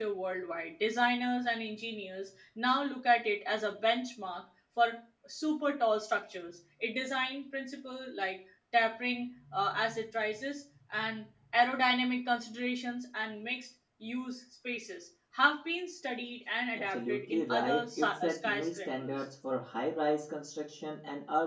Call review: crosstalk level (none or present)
present